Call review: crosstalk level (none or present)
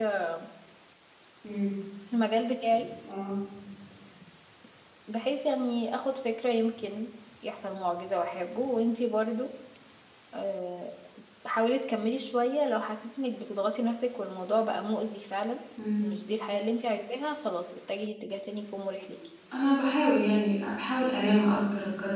none